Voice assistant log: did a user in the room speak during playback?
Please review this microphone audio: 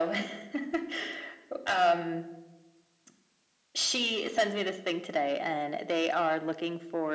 No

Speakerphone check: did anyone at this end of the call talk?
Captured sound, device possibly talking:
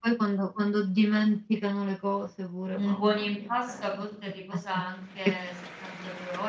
Yes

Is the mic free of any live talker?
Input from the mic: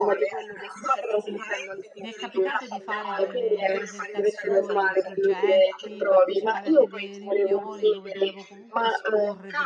No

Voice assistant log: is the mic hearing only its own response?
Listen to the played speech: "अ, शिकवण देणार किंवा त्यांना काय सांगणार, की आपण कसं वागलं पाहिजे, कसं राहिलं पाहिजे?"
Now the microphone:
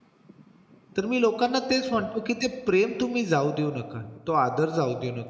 No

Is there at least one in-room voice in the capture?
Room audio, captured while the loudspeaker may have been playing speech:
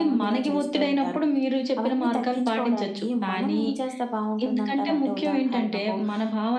No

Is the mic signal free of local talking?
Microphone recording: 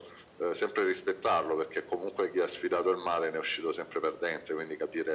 Yes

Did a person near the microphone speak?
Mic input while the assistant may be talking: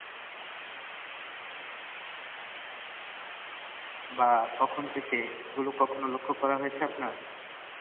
Yes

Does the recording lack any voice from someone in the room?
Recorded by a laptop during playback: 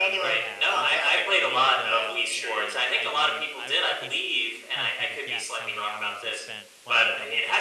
No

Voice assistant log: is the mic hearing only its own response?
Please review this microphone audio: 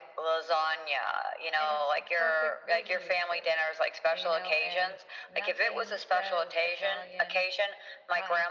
No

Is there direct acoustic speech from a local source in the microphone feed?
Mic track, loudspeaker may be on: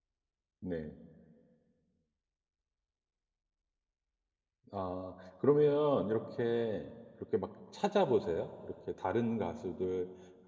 Yes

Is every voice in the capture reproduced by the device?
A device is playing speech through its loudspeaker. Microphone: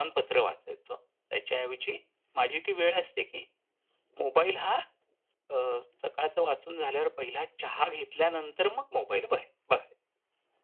Yes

